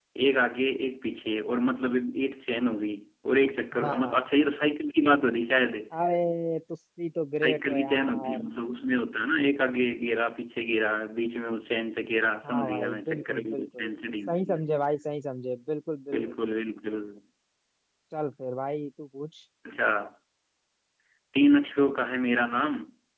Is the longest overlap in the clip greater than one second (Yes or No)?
Yes